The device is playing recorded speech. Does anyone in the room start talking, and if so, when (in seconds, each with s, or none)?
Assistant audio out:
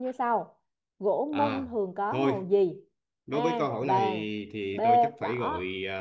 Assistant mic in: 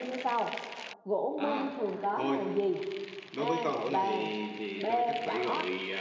none